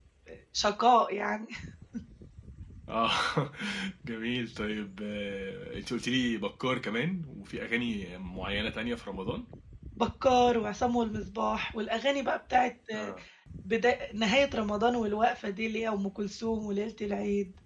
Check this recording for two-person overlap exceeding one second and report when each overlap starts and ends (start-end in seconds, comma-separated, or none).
none